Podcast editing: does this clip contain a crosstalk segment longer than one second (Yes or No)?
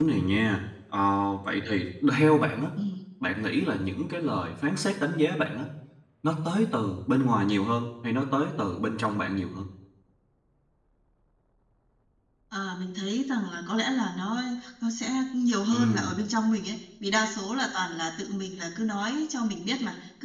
No